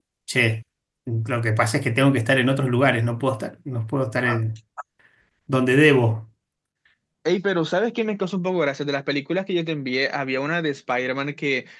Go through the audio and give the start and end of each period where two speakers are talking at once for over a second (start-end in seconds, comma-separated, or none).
none